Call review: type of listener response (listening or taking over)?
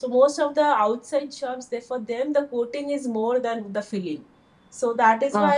listening